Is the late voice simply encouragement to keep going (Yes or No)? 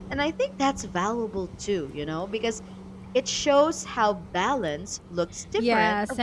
No